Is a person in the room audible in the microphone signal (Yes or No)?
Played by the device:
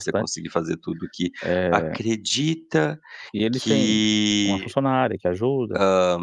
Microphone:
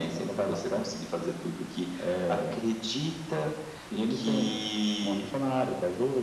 No